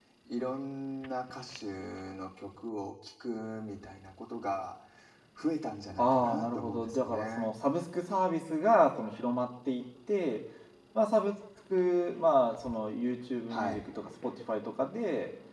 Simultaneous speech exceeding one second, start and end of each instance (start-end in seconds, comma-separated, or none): 6.0-7.5